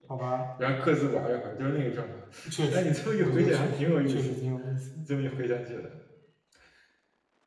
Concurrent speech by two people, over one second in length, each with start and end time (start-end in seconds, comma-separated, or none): 2.7-4.4